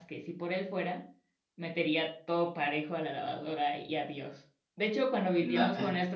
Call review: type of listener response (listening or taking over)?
listening